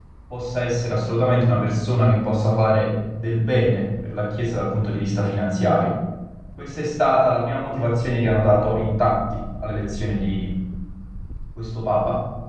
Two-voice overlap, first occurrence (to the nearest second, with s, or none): none